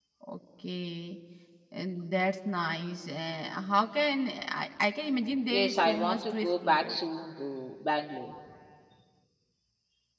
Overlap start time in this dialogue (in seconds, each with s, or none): 5.5 s